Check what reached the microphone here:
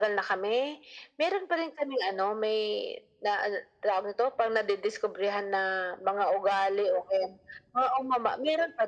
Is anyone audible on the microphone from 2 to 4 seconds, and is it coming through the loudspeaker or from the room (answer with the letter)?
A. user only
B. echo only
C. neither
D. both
B